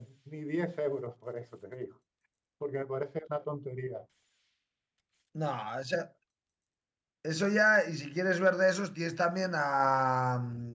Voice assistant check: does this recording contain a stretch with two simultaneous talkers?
No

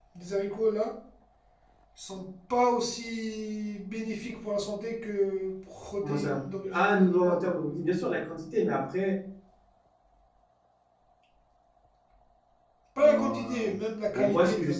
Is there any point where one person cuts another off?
Yes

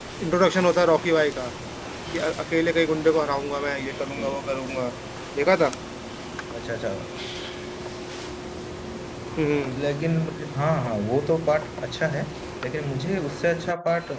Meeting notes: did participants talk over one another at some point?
No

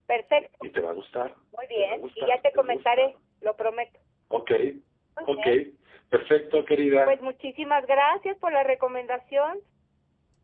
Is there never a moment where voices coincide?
No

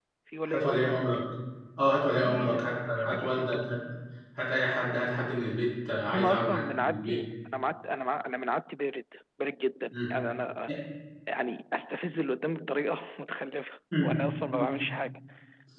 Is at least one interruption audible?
Yes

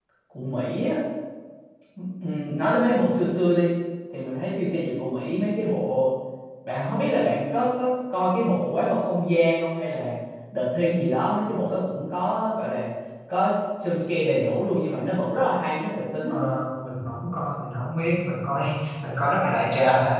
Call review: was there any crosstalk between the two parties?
No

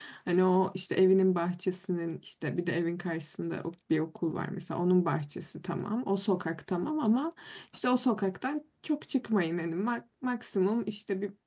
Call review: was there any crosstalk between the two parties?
No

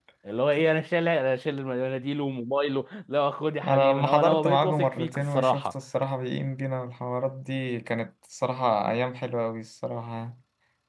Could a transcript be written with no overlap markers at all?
No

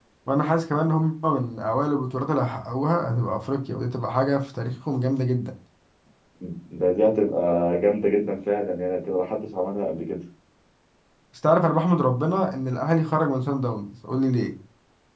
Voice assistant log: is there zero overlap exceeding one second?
Yes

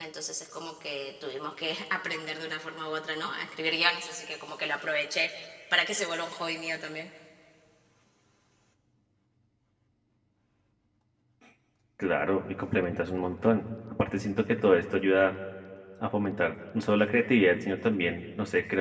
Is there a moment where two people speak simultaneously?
No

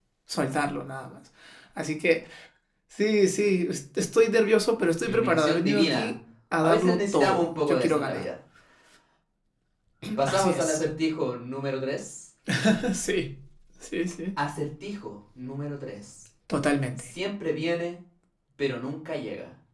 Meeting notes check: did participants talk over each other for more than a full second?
Yes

